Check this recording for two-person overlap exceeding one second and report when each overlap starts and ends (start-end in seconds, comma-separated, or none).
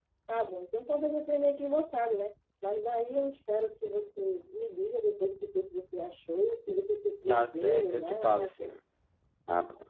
7.3-8.7